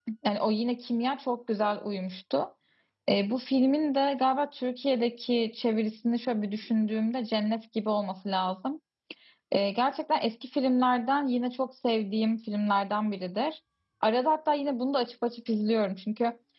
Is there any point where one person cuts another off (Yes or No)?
No